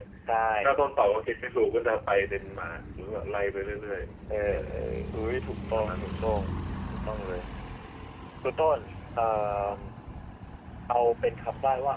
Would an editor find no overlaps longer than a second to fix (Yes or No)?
Yes